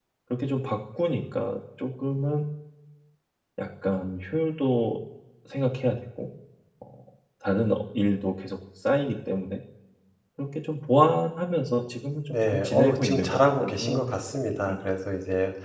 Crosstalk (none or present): present